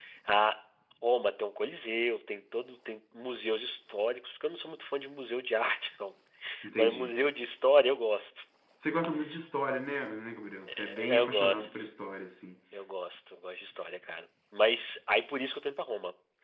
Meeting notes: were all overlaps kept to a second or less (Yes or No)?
No